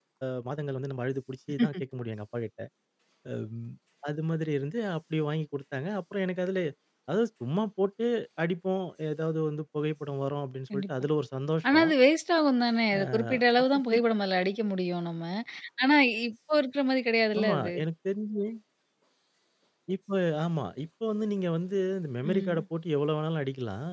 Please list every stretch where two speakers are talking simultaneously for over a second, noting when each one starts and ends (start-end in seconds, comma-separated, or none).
none